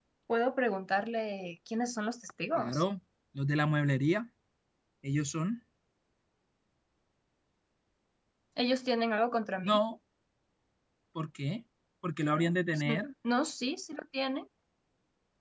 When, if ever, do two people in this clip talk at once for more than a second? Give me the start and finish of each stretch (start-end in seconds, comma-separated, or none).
none